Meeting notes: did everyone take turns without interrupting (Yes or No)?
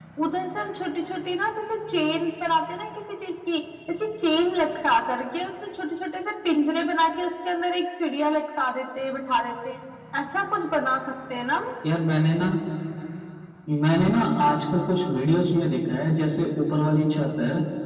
Yes